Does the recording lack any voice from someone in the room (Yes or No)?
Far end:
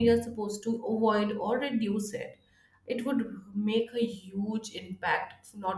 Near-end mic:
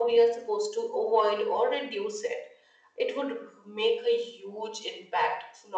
Yes